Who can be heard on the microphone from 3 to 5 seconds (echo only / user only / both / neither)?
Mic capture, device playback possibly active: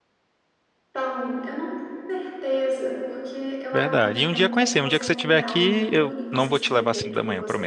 both